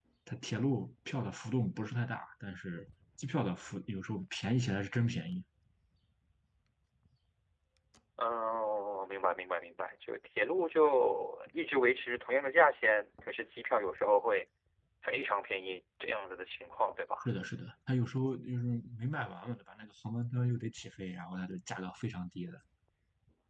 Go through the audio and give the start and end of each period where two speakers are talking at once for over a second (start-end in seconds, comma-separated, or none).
none